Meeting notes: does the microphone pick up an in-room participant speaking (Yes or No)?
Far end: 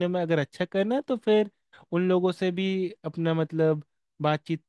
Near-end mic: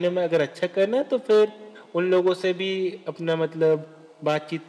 No